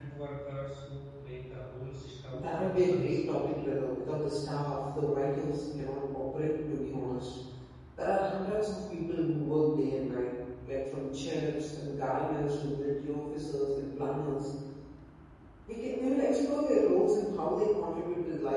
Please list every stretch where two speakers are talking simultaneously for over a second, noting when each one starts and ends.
2.3-3.6

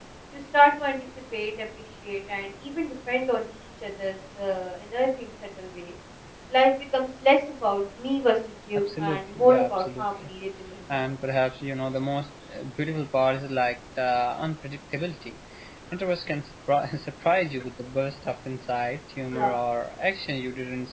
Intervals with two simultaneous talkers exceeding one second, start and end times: 8.8-10.1

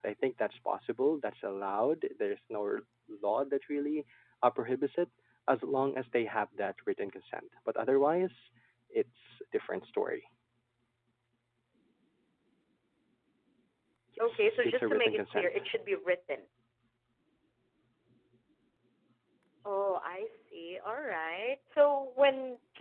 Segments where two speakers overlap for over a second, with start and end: 14.3-15.6

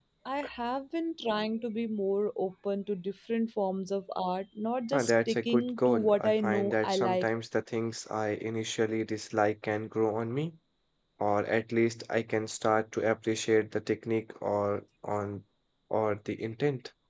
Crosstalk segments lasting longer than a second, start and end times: 4.9-7.3

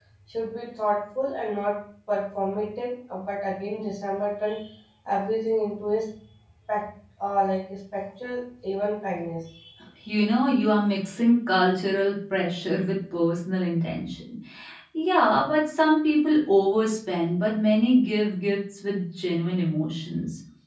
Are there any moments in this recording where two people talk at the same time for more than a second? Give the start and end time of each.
none

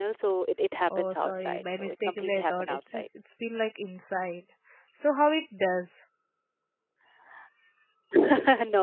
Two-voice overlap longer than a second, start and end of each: 0.9-3.1

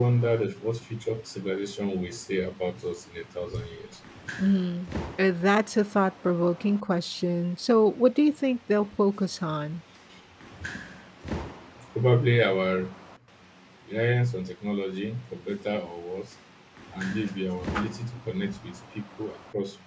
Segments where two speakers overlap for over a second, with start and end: none

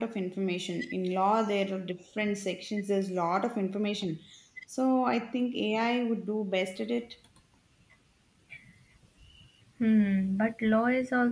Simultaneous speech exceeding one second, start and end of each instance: none

